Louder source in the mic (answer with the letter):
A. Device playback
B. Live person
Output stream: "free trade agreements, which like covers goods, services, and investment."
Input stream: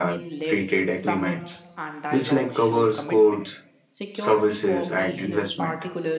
A